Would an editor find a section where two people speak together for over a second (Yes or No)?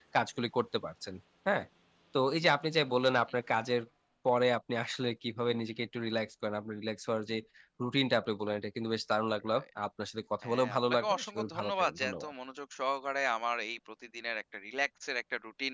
Yes